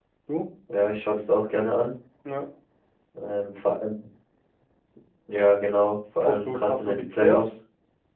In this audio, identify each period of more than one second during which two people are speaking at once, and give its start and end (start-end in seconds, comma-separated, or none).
6.2-7.5